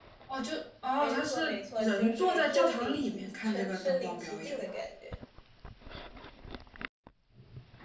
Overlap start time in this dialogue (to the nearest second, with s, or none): 1 s